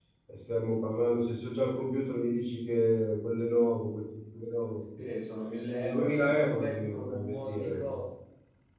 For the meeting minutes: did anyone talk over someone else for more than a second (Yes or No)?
Yes